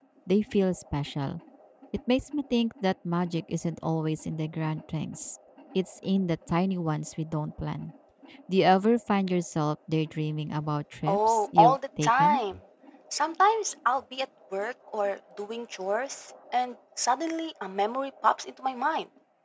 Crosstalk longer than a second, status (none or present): present